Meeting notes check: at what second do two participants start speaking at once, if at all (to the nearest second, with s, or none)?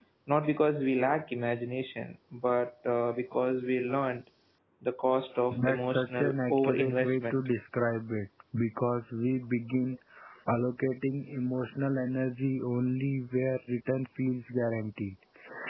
6 s